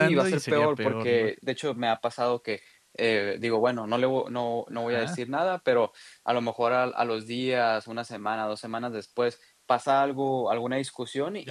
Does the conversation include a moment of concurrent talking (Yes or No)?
Yes